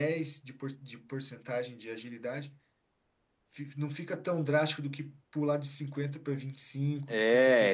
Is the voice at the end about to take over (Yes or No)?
Yes